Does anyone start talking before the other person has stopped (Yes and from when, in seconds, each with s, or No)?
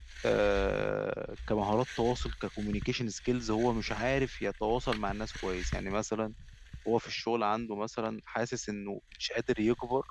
No